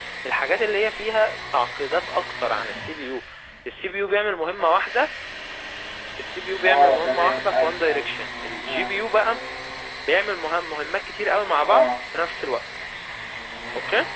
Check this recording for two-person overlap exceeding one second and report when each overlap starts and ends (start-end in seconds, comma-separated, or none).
6.6-8.1